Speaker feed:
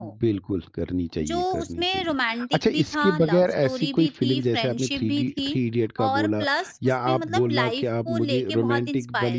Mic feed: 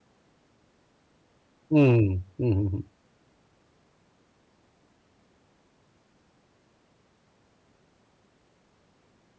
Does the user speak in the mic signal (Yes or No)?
Yes